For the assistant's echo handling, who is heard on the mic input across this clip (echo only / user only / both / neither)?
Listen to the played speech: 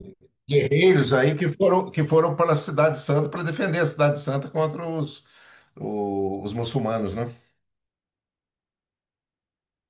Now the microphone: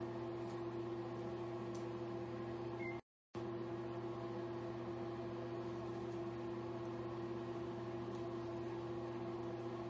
neither